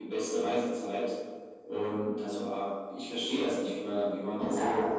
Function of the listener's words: taking over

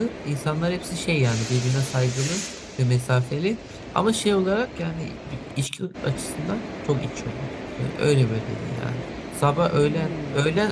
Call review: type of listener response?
listening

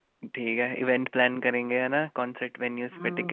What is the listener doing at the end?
taking over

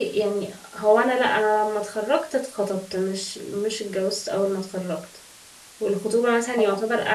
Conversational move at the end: listening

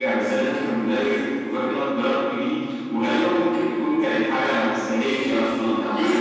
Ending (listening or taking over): taking over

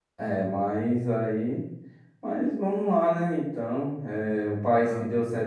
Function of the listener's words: listening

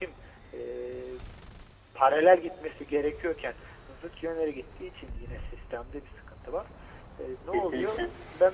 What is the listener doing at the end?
listening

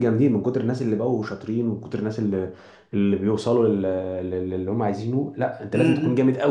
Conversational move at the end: taking over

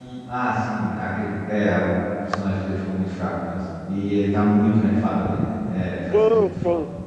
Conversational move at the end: taking over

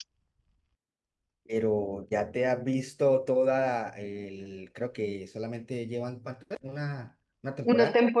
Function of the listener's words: taking over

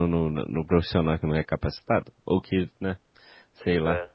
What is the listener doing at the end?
taking over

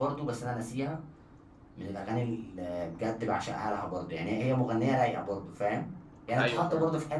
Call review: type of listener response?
listening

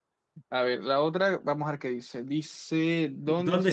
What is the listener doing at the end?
taking over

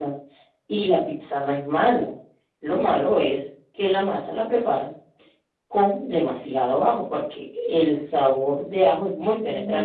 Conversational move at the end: taking over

